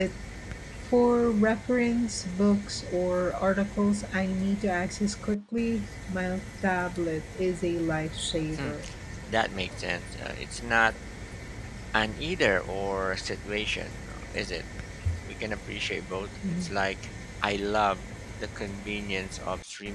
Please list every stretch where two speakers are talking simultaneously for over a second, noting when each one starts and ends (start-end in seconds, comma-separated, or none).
none